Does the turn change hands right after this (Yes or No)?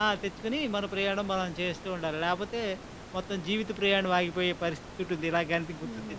Yes